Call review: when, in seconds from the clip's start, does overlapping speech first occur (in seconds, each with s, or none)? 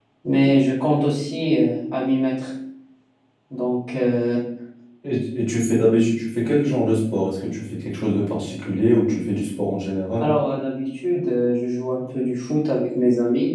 none